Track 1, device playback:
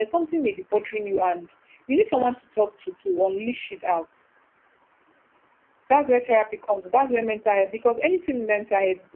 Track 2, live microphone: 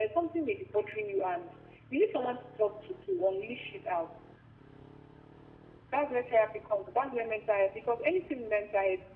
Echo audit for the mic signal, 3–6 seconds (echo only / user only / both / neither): echo only